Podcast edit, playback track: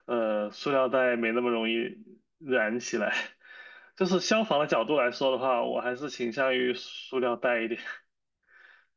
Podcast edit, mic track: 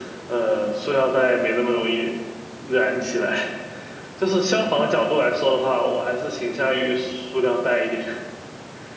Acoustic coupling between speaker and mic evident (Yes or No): Yes